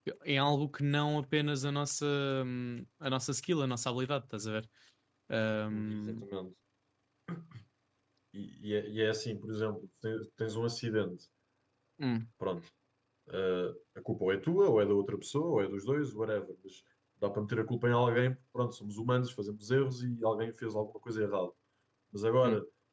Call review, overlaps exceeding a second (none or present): none